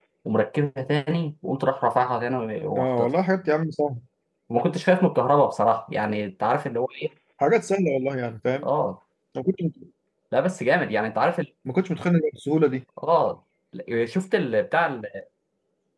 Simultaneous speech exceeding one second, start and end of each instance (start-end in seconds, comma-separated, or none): none